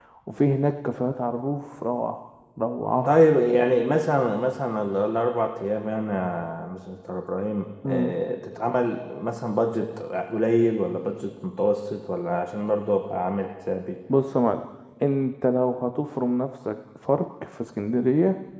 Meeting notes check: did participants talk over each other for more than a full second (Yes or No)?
No